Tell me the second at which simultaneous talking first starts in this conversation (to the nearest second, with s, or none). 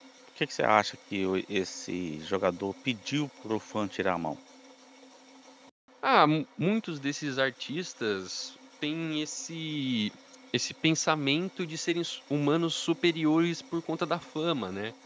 none